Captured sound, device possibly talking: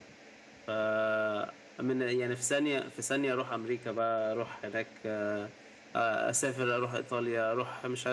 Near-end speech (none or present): none